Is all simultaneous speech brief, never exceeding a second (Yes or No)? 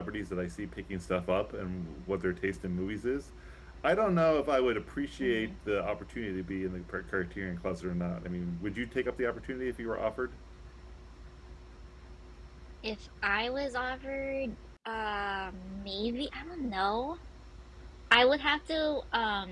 Yes